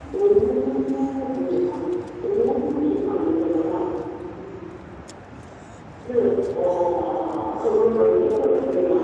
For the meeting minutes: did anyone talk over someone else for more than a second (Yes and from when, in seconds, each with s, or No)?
Yes, from 7.6 s